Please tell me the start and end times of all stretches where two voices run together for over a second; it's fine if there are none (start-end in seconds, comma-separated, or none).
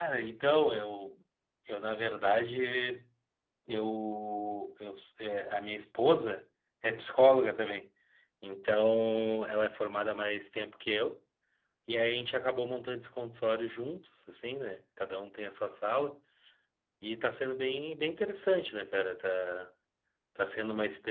none